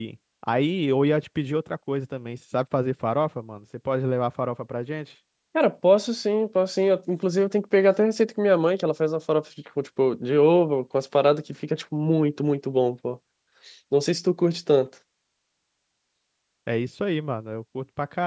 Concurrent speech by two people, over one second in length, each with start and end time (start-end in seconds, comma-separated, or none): none